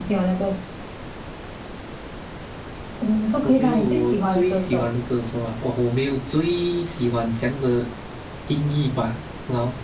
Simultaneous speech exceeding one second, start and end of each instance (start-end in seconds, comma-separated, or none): 3.4-4.8